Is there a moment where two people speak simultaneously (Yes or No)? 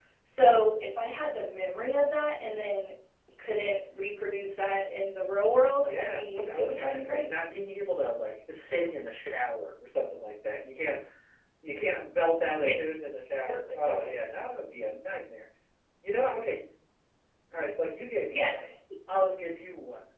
Yes